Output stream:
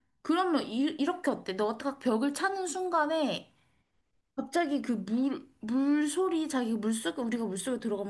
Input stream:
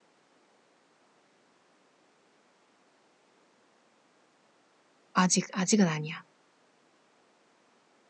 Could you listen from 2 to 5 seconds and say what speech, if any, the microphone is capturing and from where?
neither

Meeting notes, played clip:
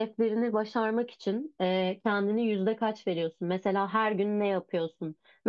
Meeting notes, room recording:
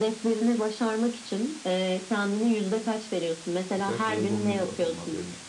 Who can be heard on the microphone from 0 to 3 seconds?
echo only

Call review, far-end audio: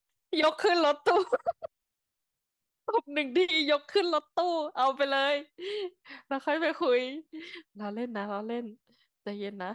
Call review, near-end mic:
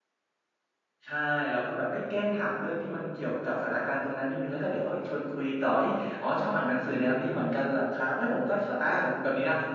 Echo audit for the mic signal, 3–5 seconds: user only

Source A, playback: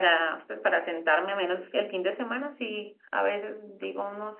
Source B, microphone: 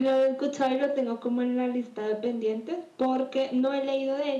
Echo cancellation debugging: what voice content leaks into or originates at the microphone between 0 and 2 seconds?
user only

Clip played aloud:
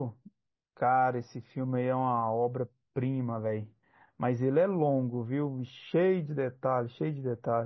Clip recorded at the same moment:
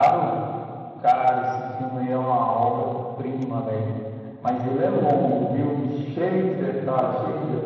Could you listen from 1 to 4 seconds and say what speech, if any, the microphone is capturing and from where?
echo only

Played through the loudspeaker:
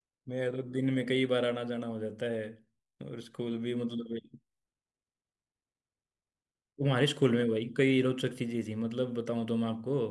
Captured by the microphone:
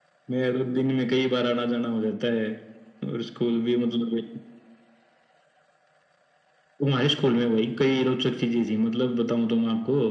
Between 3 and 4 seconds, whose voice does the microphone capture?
echo only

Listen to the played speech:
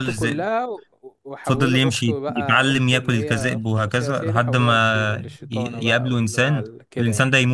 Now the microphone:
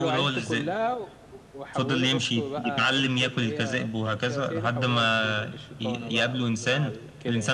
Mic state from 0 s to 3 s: echo only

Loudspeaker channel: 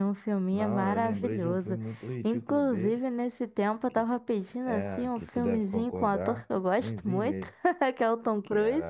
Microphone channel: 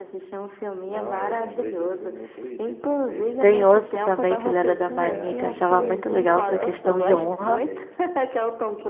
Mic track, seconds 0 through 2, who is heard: echo only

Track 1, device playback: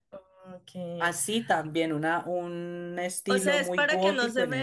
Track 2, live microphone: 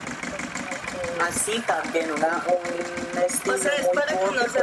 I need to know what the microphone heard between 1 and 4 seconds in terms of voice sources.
echo only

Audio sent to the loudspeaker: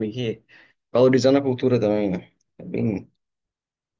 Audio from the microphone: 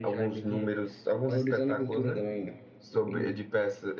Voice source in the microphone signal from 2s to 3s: both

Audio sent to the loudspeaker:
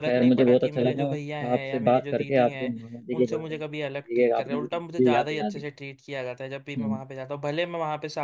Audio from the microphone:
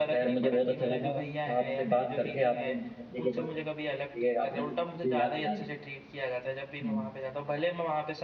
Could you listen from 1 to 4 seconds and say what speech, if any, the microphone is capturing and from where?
echo only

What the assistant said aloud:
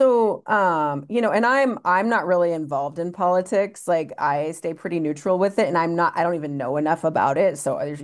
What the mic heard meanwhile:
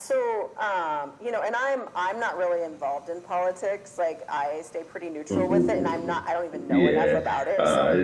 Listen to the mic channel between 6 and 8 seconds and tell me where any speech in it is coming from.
both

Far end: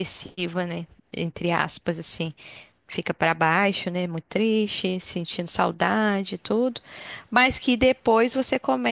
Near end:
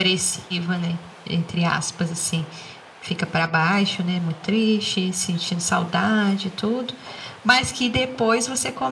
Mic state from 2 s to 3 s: echo only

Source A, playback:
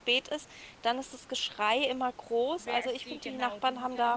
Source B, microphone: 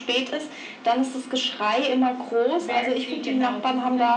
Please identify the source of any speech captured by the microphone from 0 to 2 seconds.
echo only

